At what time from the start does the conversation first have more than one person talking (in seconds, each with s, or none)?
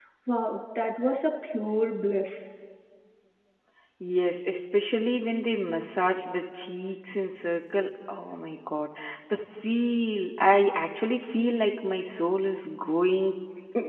none